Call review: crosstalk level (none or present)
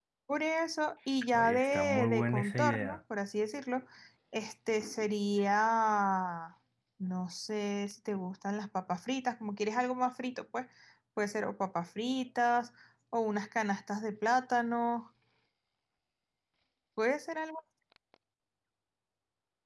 present